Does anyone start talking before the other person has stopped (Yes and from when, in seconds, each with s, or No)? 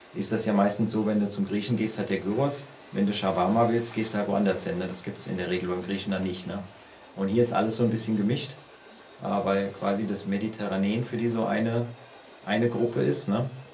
No